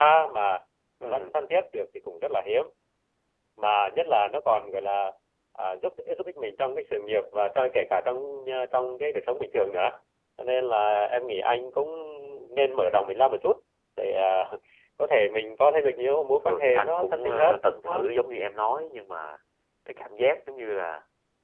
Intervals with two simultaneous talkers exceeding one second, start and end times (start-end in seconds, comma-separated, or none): 16.4-18.0